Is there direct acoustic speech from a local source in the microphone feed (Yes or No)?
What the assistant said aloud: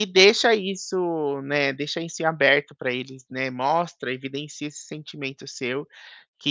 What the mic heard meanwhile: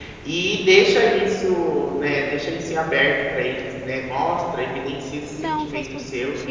Yes